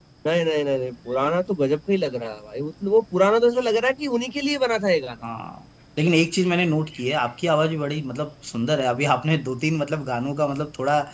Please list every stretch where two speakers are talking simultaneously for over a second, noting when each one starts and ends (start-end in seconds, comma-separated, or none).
none